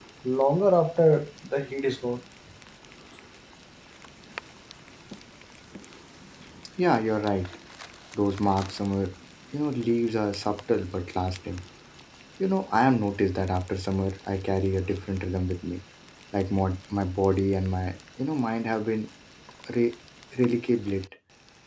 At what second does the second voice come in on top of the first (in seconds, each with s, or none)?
none